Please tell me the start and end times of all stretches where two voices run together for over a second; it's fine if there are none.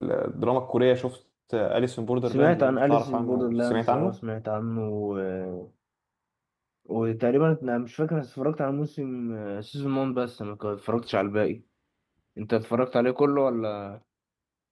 2.3-4.2

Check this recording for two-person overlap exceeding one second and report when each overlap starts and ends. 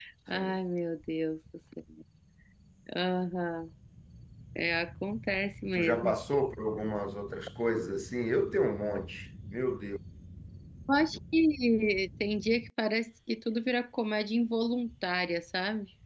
none

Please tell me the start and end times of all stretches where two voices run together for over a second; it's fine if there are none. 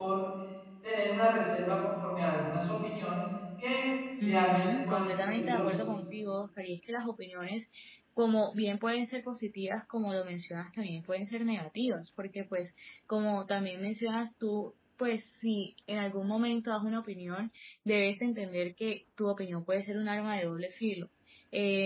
4.2-5.8

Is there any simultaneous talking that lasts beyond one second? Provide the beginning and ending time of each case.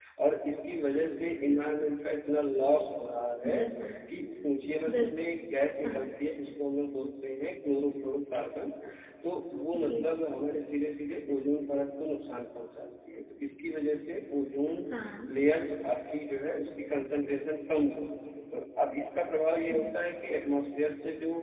none

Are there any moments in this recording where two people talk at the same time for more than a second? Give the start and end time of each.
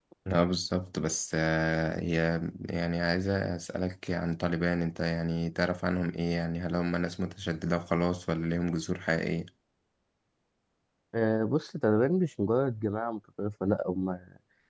none

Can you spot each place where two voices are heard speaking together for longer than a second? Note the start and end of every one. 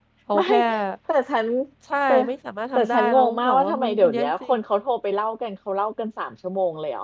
2.8-4.6

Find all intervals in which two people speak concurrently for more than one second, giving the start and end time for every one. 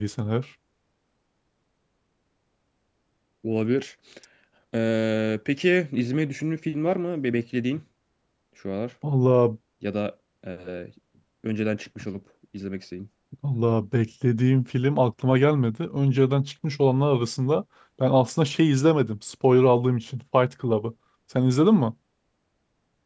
none

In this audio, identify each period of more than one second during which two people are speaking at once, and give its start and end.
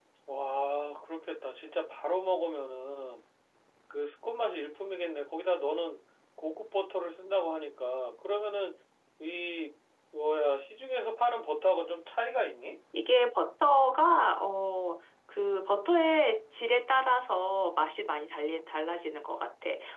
none

